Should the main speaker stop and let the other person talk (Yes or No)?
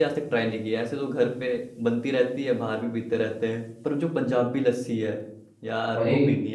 Yes